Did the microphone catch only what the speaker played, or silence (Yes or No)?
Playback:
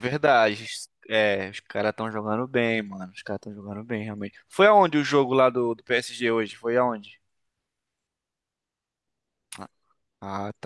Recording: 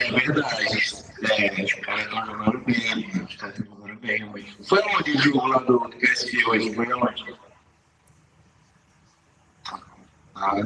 Yes